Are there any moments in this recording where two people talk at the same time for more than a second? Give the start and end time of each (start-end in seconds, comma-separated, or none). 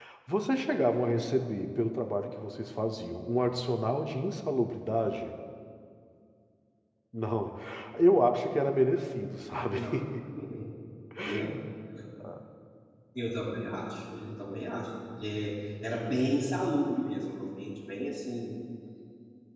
none